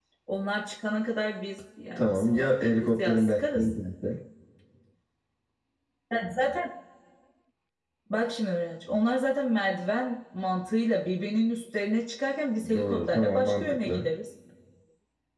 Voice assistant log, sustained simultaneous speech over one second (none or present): present